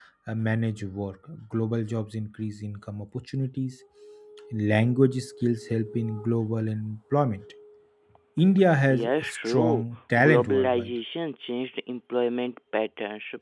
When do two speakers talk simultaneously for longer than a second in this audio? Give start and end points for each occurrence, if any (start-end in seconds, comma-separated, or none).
8.9-10.9